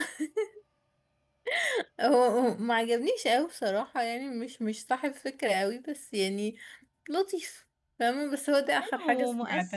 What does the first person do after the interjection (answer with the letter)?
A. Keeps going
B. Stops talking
B